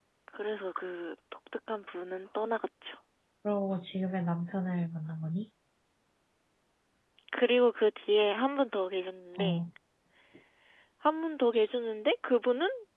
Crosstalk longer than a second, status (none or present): none